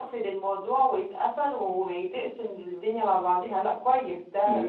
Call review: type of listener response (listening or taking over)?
taking over